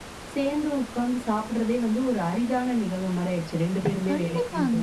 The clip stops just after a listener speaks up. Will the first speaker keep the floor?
No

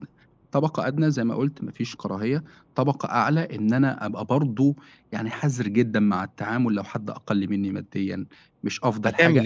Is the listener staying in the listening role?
No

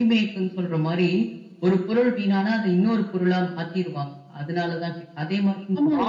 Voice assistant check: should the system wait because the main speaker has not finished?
No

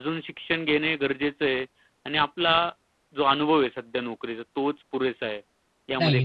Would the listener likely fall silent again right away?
No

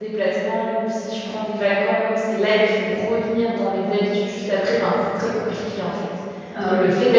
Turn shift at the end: No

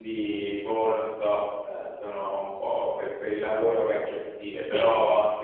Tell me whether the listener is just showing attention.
Yes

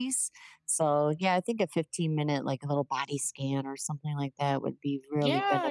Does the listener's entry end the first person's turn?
Yes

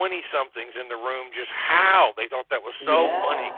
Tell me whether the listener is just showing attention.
Yes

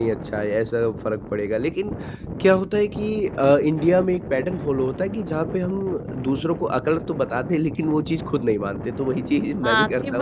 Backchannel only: No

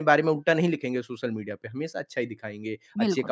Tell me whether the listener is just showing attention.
Yes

